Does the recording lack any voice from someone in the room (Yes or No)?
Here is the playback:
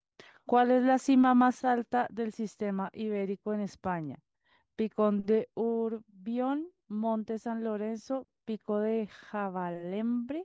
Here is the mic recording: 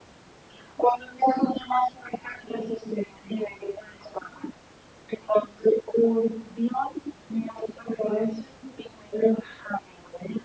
Yes